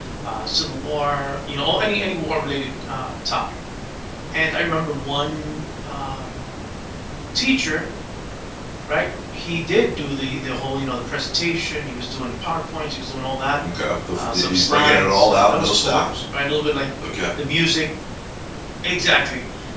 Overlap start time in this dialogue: 14 s

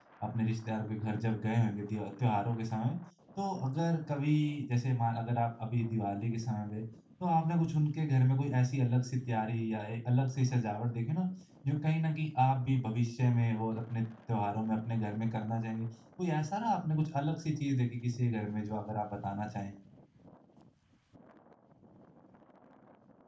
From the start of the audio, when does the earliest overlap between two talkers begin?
none

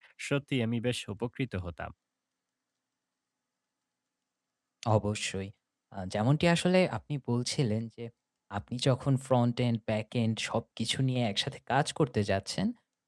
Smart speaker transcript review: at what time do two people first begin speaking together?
none

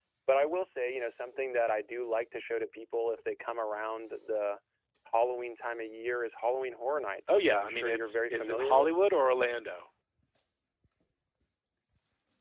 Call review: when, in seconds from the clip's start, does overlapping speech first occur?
7 s

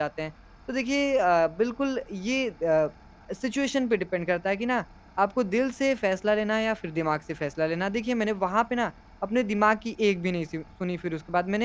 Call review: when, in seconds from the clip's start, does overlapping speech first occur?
none

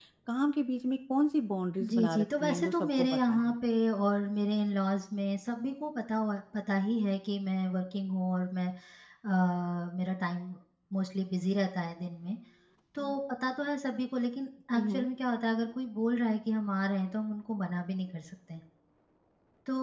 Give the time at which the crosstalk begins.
2 s

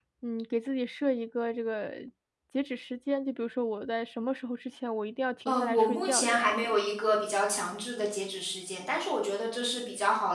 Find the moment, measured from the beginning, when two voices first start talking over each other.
5 s

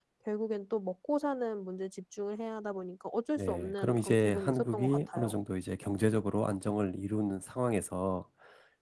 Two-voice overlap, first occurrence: 3 s

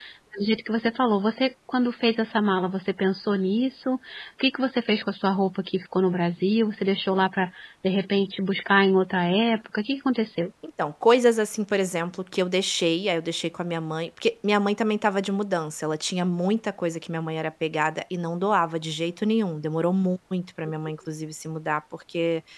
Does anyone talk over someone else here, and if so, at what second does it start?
none

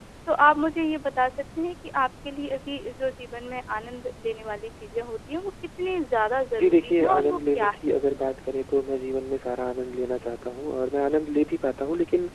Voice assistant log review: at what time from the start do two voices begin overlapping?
7 s

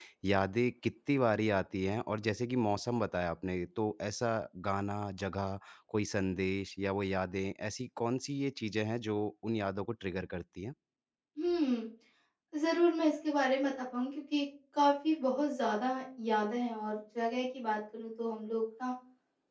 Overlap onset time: none

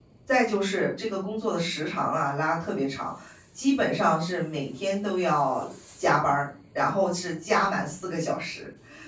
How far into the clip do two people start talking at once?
none

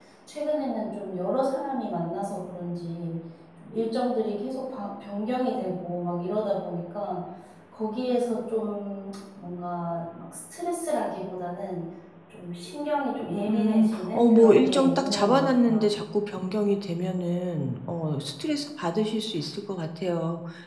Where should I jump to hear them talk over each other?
13 s

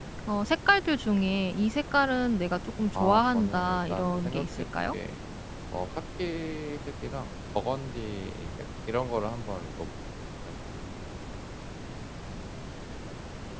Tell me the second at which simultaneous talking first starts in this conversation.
3 s

